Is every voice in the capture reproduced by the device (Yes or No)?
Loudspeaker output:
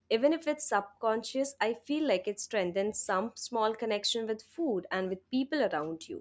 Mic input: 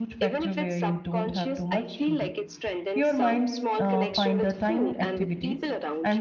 No